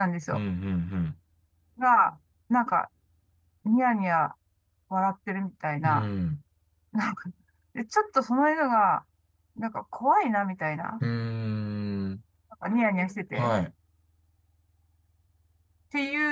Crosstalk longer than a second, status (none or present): none